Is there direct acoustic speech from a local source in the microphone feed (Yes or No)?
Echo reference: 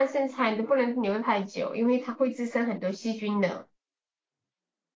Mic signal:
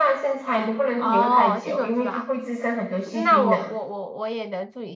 Yes